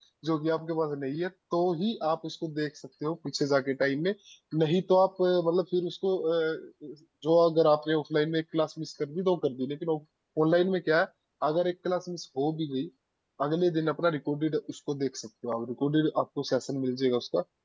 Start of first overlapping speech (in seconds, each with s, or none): none